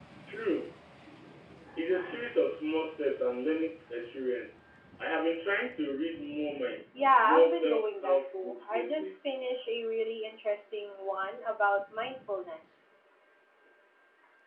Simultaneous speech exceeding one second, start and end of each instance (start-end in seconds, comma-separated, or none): 7.2-9.1